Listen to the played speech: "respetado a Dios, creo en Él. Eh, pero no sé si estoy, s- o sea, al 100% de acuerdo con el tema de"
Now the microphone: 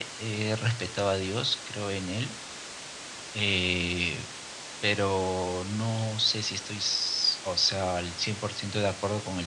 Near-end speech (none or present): none